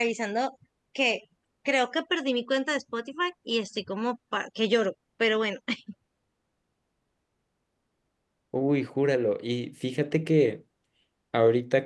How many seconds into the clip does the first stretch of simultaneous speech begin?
none

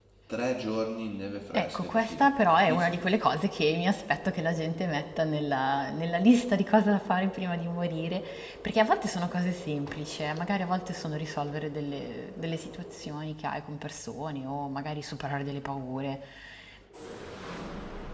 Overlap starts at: 1.5 s

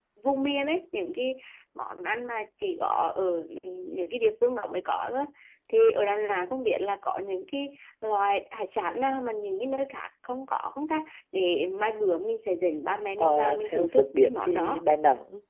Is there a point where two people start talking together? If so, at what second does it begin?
13.2 s

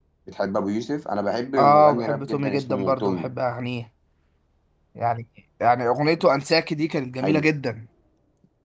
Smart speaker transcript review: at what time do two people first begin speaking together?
1.6 s

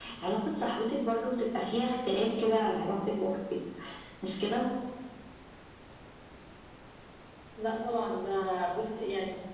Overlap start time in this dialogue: none

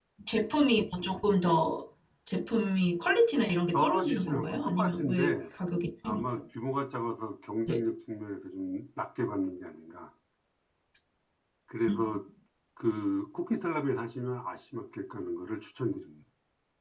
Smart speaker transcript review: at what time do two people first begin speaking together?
3.7 s

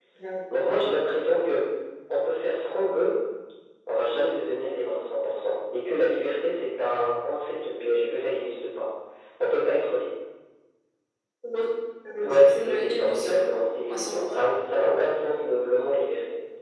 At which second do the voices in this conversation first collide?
12.2 s

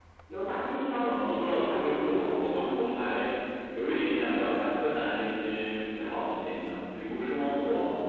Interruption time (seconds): 1.0 s

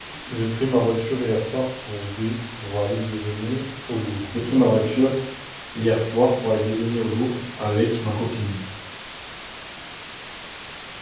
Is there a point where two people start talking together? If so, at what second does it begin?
none

